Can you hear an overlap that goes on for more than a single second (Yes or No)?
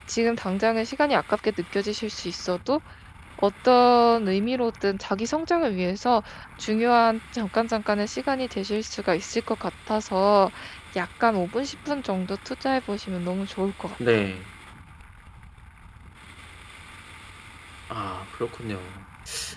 No